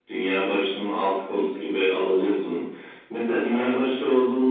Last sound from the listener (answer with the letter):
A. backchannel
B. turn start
A